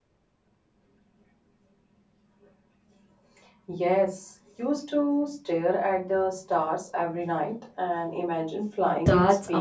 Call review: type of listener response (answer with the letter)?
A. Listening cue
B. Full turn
B